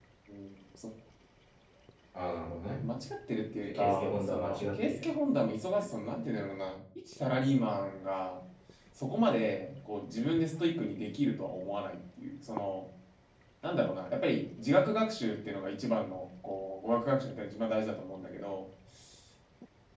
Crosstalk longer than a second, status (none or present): present